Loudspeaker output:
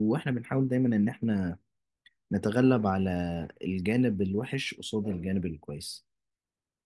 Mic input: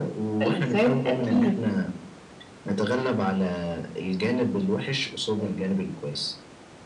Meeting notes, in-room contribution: present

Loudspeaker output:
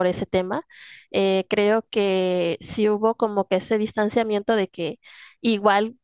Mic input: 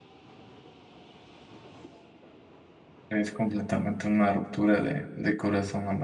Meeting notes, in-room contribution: present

